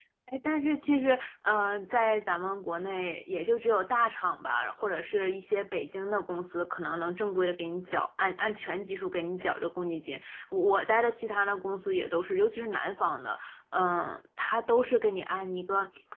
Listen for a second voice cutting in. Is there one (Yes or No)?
No